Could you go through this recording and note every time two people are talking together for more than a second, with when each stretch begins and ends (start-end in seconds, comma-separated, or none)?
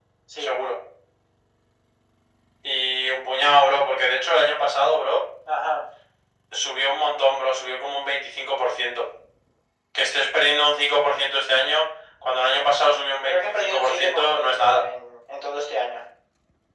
13.2-14.8